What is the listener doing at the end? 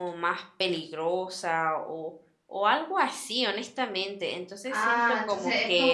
taking over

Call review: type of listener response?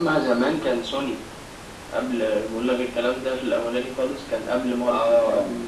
taking over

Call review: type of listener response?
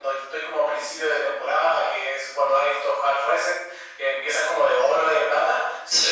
listening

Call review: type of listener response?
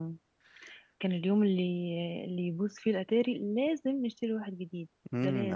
taking over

